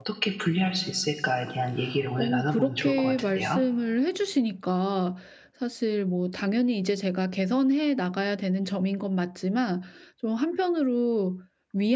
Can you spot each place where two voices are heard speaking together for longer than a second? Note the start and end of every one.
2.2-3.6

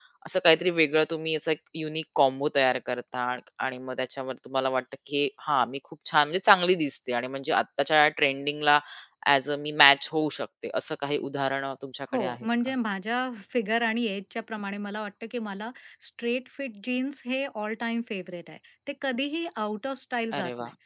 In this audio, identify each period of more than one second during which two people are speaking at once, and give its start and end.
none

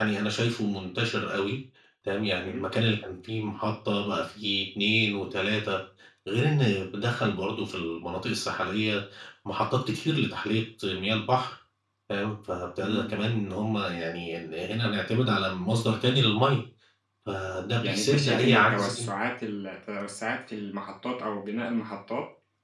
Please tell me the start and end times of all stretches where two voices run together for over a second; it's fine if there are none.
17.8-19.1

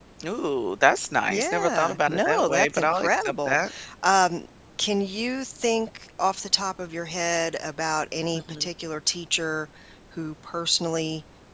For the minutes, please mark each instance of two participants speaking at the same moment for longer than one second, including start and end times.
1.3-3.6

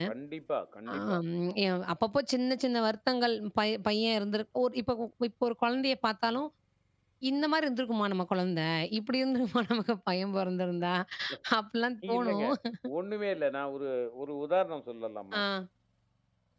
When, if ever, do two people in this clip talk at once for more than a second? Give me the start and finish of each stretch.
none

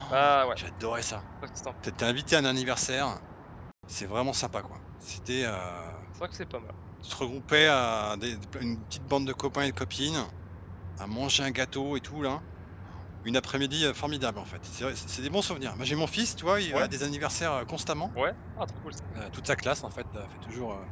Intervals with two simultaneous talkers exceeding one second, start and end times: none

